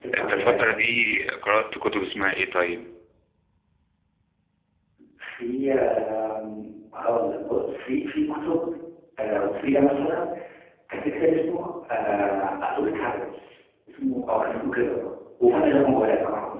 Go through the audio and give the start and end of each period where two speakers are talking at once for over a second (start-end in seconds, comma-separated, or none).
none